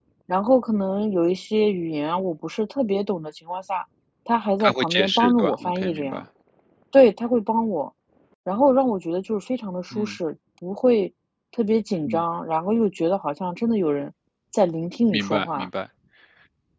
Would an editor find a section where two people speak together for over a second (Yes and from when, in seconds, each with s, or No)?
Yes, from 4.6 s